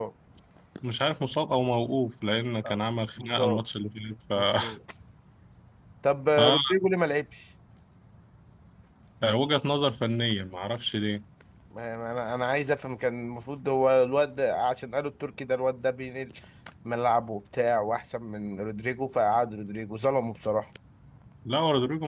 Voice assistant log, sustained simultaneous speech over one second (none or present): none